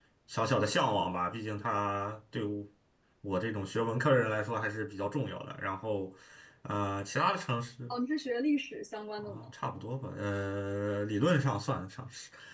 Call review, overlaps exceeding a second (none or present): none